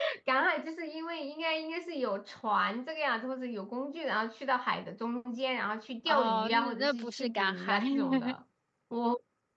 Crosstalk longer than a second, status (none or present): present